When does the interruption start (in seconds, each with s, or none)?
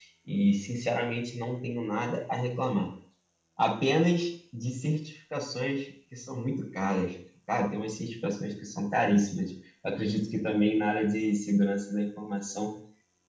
none